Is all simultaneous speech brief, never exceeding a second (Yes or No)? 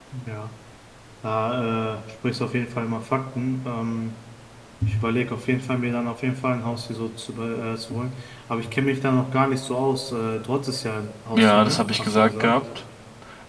No